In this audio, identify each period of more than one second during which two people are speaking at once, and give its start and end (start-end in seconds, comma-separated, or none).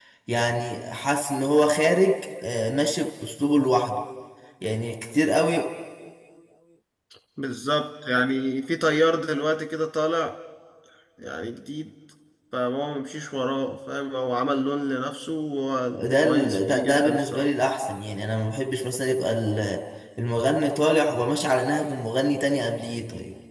16.0-17.5